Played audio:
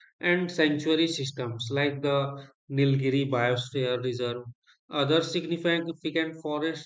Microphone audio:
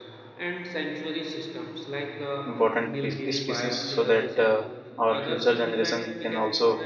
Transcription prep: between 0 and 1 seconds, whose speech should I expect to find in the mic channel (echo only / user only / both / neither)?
echo only